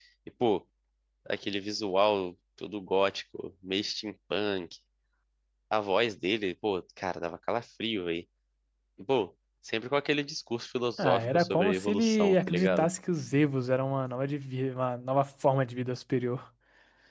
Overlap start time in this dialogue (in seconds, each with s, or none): 11.0 s